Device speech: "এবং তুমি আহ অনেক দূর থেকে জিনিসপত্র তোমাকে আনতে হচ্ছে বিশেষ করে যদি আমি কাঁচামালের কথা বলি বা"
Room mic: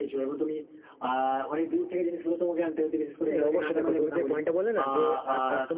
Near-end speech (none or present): present